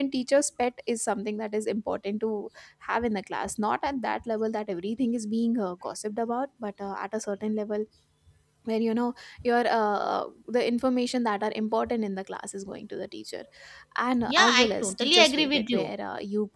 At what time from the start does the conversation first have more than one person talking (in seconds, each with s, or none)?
14.2 s